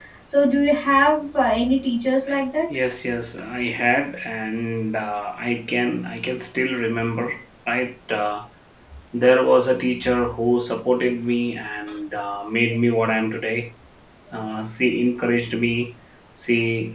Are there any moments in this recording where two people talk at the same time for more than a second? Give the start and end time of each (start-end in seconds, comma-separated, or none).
none